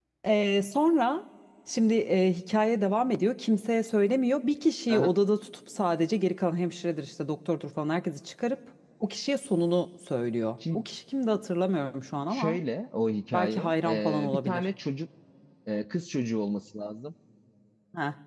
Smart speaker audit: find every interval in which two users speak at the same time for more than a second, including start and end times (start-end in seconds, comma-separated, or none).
13.3-14.7